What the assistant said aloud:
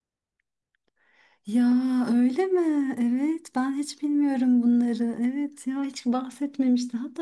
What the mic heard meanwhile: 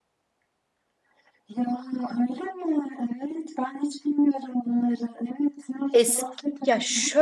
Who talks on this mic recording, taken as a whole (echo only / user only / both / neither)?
both